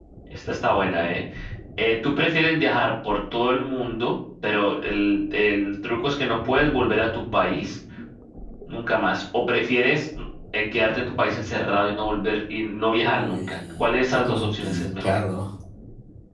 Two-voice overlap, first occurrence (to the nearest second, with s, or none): 13 s